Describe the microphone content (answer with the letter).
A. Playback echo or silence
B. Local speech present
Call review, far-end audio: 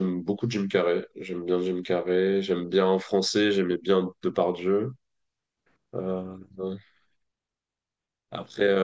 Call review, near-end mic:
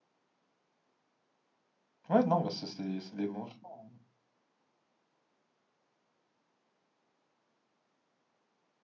B